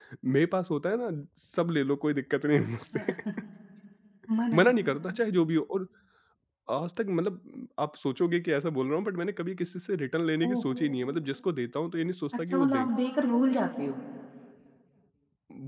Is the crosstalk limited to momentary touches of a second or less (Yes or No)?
Yes